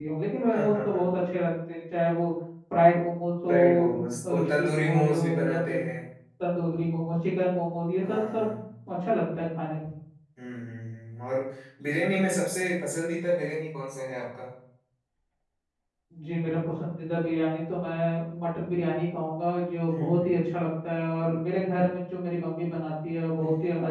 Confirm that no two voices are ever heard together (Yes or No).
No